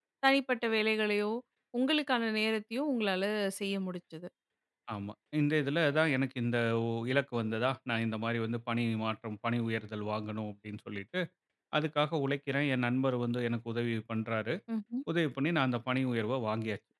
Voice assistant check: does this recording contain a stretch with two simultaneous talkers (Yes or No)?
No